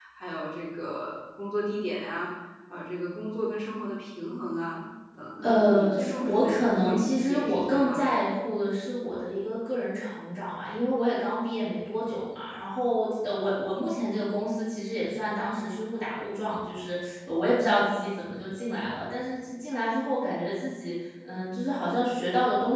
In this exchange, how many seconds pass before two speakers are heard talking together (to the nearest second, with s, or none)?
5 s